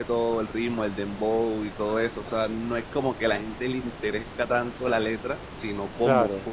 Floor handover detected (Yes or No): No